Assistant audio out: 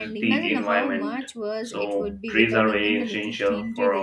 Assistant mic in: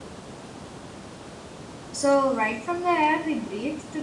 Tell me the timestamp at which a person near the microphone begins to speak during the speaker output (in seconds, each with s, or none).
1.9 s